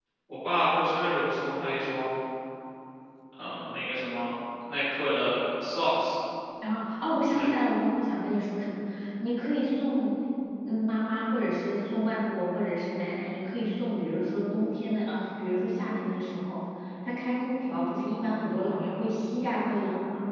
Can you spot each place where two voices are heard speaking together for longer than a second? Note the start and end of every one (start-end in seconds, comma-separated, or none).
none